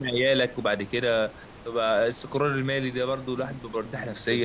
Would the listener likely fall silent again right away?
No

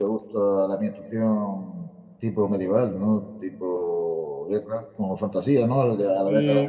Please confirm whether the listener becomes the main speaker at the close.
Yes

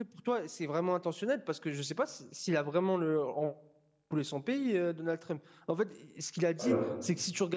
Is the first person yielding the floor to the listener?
No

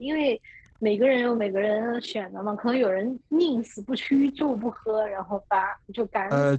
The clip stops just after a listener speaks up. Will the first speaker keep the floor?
No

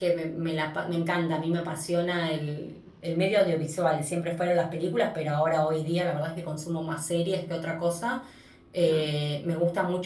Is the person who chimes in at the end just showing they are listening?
Yes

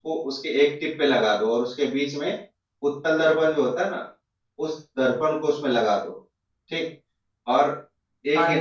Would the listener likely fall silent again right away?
No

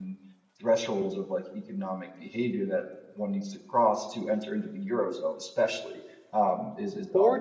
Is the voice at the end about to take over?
Yes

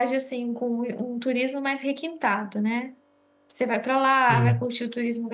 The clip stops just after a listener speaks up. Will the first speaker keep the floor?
Yes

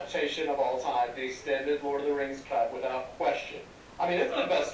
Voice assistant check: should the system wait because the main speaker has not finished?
Yes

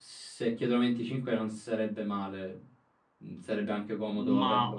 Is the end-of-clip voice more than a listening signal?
Yes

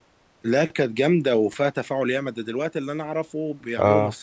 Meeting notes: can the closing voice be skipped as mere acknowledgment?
Yes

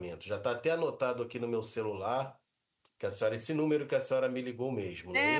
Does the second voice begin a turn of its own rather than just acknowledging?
Yes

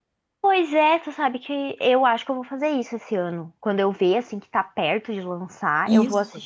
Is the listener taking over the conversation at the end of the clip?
No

